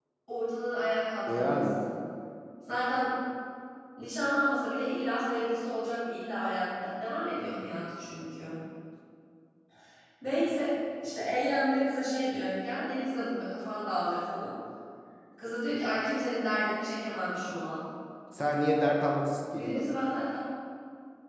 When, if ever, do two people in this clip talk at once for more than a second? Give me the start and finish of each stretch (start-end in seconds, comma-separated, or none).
none